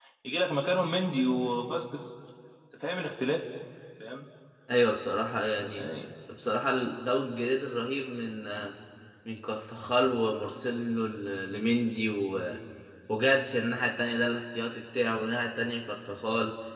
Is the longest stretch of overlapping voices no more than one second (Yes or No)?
Yes